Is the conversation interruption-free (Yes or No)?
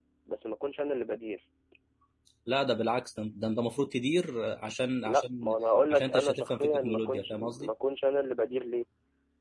No